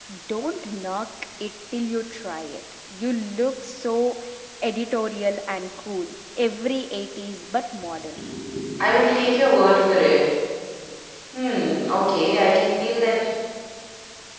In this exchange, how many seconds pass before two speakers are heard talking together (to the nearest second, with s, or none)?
none